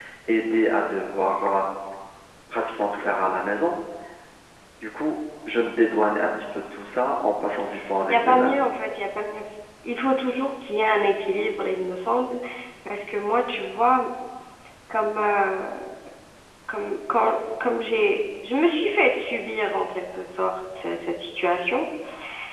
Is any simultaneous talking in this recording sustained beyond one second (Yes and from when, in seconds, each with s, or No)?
No